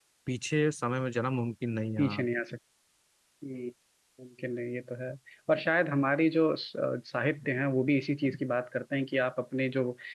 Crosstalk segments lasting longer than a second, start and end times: none

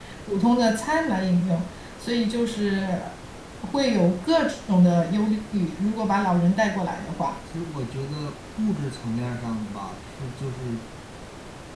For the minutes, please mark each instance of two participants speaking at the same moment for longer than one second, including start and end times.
none

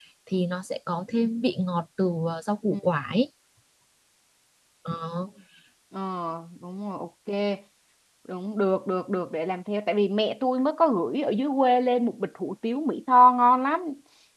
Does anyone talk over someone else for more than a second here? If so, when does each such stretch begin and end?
none

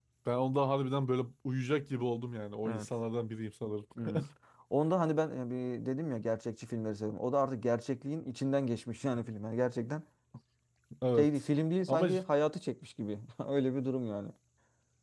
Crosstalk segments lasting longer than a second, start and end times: none

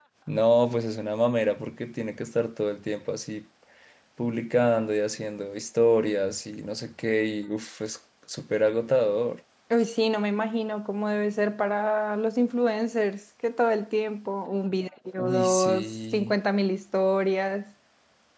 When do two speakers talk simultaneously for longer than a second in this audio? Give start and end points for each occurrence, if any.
15.2-16.4

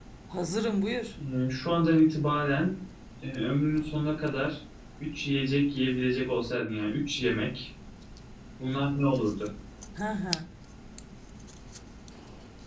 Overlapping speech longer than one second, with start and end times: none

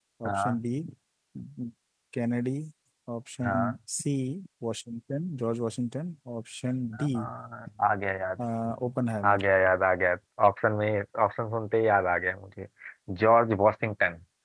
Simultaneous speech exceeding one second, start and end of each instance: none

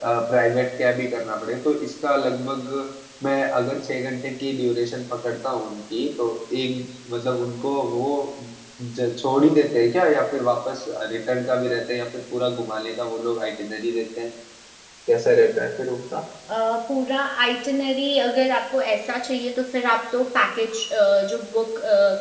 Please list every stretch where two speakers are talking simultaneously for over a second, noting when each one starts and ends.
none

